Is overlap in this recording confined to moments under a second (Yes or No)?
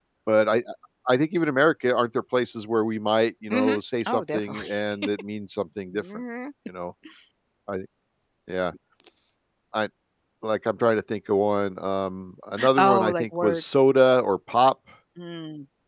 No